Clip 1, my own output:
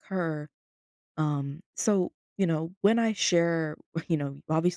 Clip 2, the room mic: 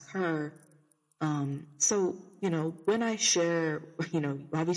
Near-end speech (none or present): none